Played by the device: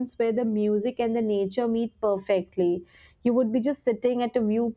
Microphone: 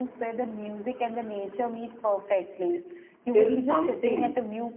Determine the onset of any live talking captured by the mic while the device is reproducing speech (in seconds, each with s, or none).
3.3 s